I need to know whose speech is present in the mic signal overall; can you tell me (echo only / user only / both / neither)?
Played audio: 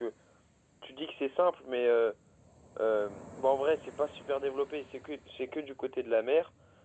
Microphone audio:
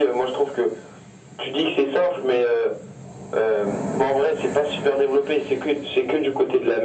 echo only